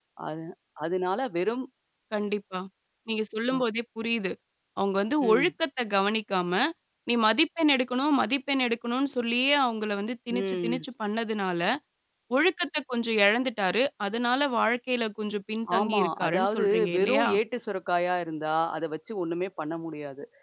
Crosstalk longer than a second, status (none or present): present